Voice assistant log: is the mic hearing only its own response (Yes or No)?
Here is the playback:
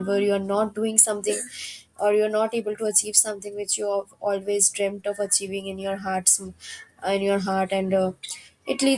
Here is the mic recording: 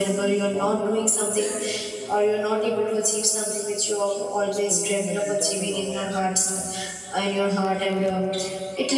No